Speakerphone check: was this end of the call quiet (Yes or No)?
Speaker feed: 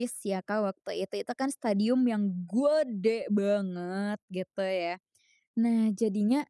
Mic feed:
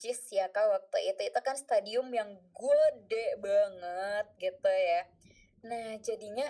Yes